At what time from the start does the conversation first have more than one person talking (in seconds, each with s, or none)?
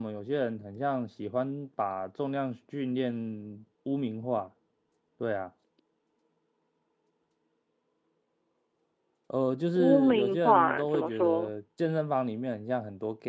9.8 s